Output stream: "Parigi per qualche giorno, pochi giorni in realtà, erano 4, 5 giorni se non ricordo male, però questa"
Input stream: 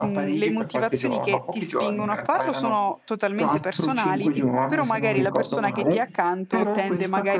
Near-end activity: present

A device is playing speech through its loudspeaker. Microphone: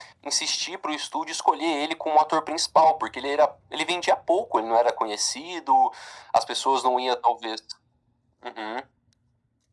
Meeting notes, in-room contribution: none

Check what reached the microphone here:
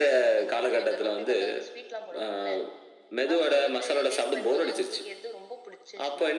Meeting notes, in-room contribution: none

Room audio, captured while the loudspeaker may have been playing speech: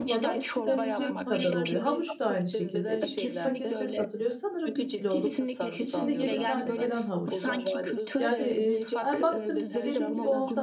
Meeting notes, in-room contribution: present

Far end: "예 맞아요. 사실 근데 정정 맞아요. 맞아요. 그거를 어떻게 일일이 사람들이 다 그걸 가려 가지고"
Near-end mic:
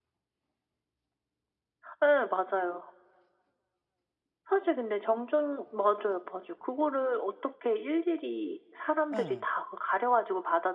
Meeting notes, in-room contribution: present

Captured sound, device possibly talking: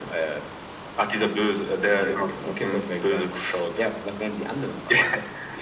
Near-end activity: none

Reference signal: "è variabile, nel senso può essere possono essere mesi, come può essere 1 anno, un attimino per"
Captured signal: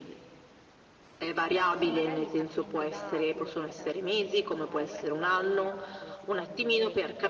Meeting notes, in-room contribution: present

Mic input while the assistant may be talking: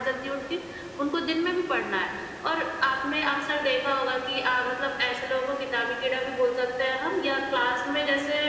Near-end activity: none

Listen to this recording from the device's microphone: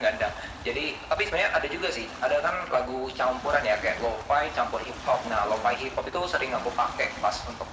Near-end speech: none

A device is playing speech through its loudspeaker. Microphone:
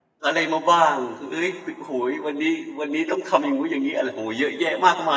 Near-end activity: present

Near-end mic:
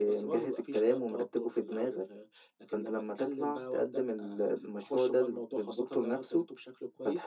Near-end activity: none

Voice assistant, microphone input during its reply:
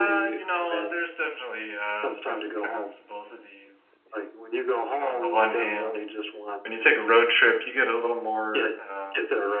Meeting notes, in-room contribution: present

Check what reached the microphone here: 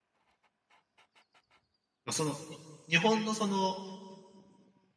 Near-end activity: present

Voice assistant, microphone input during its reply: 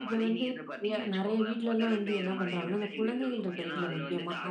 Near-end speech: present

